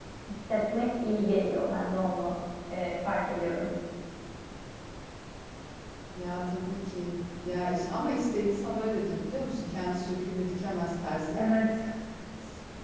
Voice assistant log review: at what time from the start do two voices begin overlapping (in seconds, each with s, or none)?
none